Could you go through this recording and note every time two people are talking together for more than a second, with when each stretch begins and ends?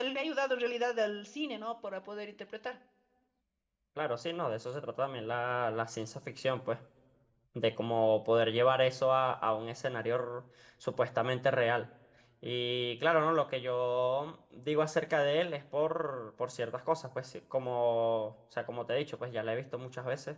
none

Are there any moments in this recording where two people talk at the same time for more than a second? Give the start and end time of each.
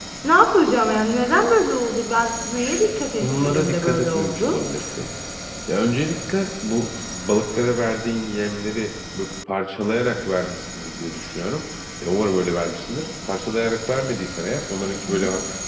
3.2-4.6

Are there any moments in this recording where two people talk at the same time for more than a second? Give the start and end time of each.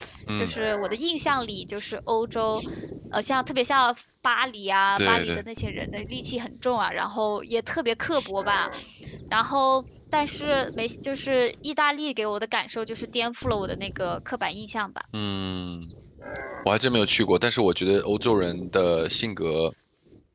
none

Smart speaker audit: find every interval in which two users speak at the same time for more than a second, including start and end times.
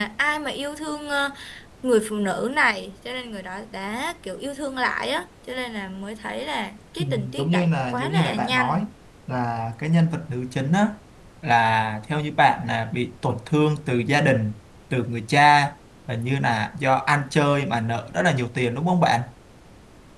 7.0-8.8

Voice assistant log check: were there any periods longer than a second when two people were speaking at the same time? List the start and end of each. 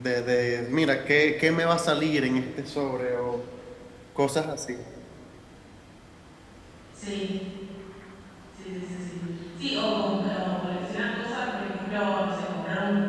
none

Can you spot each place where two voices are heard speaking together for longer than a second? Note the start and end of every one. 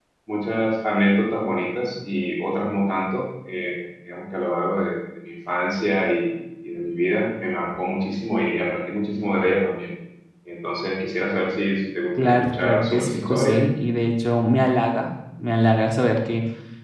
12.2-13.6

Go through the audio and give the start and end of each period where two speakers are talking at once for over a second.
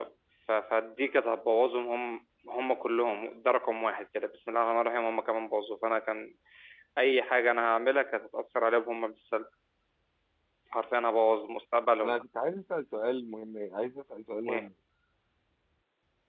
none

